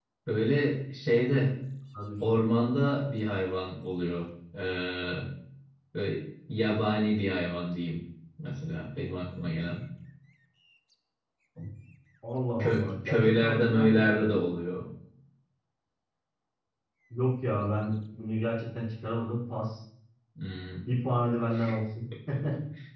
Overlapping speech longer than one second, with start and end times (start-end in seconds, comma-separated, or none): 12.6-14.3